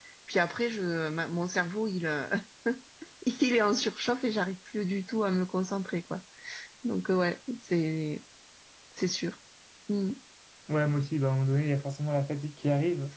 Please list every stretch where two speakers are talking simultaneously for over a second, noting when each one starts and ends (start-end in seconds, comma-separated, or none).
none